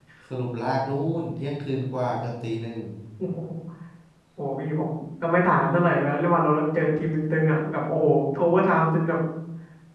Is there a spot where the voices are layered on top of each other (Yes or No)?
No